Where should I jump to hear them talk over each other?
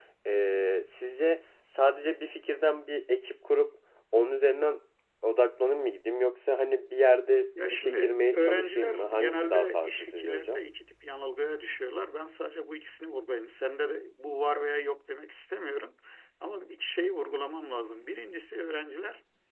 7.5 s

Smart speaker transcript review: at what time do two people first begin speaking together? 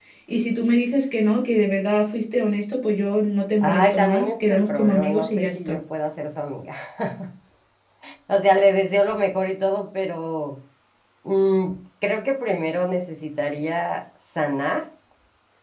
3.6 s

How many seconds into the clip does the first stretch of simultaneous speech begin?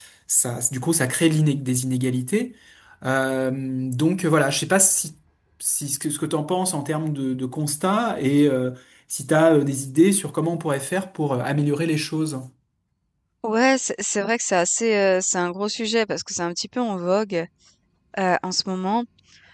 none

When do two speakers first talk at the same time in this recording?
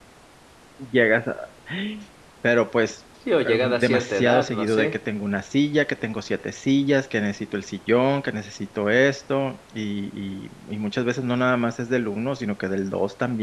3.5 s

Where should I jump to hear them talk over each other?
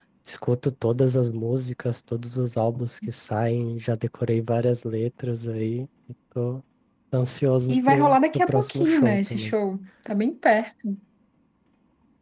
7.7 s

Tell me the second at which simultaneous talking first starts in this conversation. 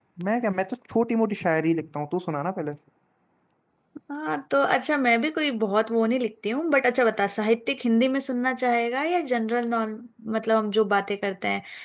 none

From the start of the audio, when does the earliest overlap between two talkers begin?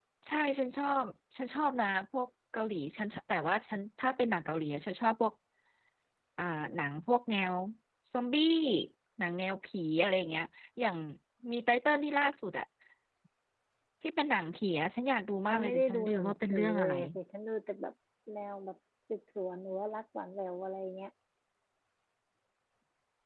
15.5 s

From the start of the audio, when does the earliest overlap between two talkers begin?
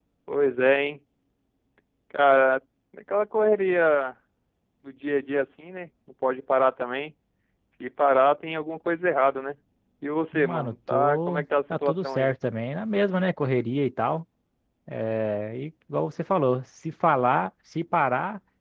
10.3 s

